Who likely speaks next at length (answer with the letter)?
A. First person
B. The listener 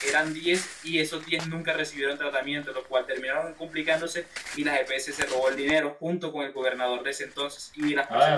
A